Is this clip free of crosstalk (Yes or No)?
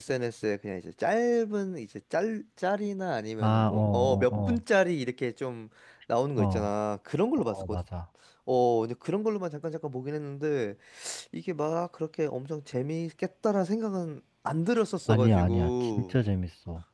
No